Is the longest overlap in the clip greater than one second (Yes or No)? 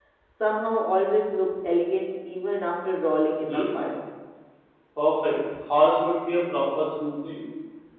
No